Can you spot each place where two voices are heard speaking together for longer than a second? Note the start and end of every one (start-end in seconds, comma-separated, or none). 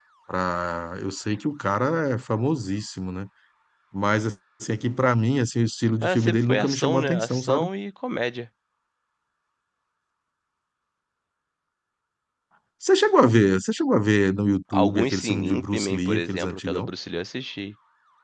6.0-7.7, 14.8-16.9